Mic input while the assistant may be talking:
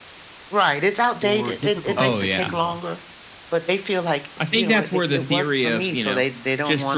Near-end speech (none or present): present